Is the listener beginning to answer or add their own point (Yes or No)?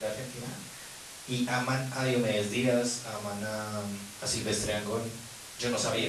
Yes